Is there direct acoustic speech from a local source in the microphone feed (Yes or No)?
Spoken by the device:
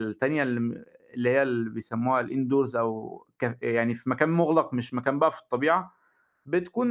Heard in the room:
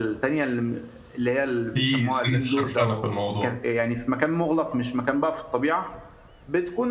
Yes